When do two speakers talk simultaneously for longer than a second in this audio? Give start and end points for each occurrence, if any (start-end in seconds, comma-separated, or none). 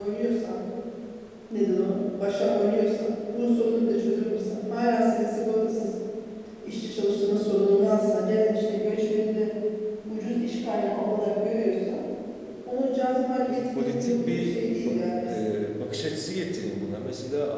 13.5-15.0